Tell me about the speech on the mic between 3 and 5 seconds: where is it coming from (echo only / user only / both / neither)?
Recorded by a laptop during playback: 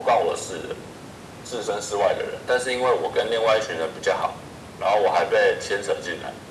echo only